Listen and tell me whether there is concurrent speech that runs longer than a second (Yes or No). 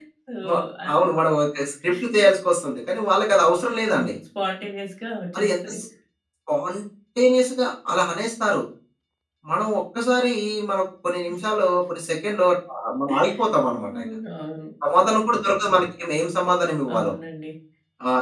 No